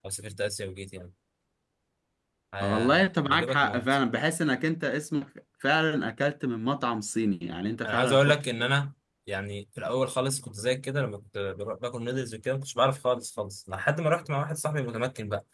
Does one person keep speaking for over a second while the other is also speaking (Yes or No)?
Yes